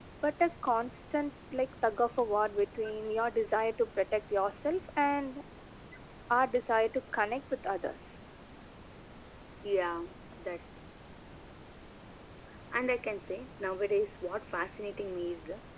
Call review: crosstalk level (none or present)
none